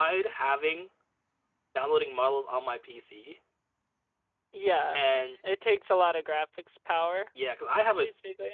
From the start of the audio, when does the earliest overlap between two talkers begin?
none

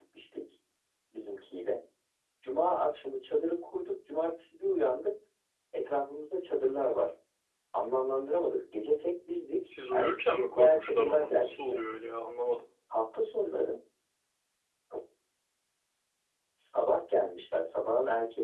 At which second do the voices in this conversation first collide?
9.7 s

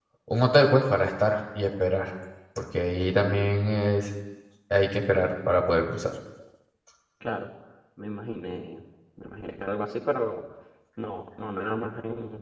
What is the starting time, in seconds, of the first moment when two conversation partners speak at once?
none

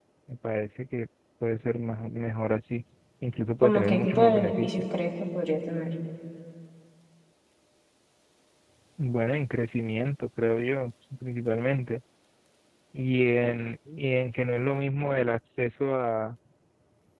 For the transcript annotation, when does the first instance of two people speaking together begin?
3.6 s

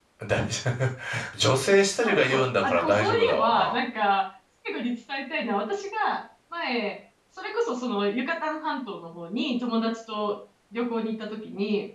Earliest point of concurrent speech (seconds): 2.0 s

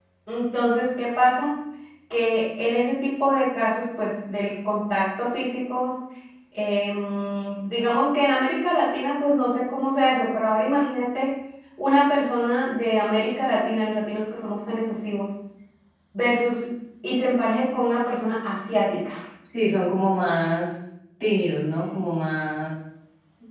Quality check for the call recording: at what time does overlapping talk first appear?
none

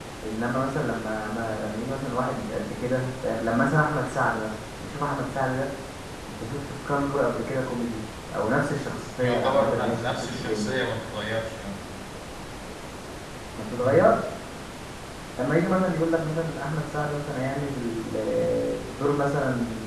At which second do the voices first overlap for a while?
9.2 s

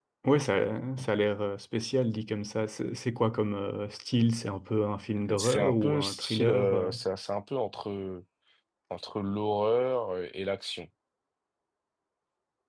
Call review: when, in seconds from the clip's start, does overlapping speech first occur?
5.3 s

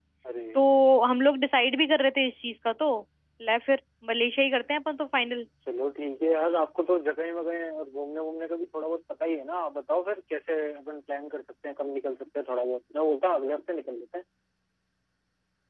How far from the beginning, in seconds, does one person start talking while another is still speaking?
none

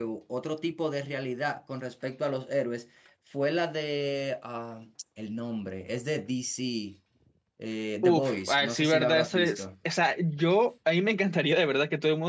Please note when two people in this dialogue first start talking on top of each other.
8.0 s

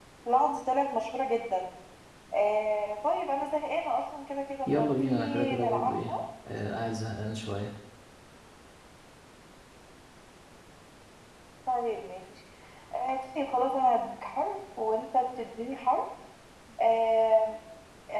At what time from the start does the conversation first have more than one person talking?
4.7 s

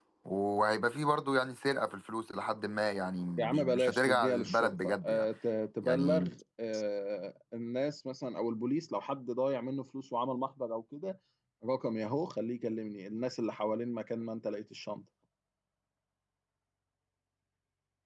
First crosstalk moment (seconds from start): 3.4 s

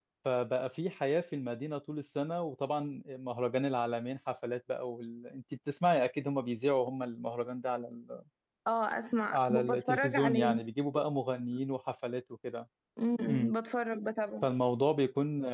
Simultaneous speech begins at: 9.3 s

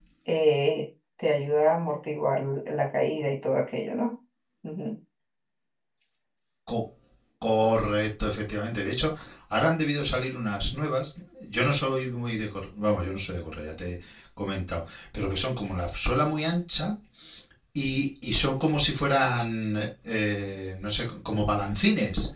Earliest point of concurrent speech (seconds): none

